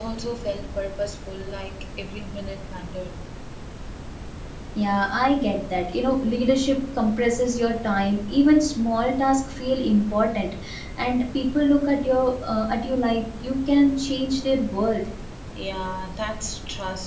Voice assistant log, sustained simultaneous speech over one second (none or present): none